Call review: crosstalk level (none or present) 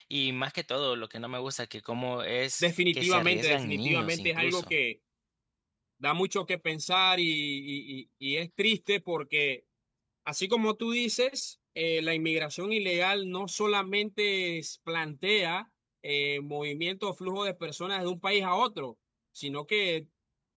present